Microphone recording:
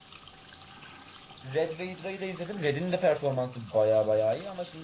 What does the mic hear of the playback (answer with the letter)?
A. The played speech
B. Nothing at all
B